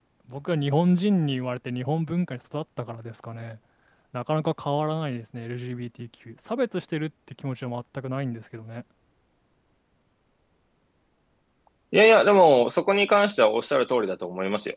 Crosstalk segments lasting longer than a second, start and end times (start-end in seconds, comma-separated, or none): none